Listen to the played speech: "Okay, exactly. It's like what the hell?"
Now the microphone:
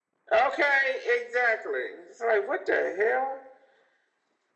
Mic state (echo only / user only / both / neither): echo only